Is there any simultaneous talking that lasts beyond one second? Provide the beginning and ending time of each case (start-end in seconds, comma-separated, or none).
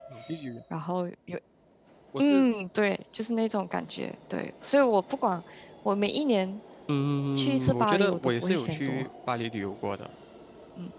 7.4-9.1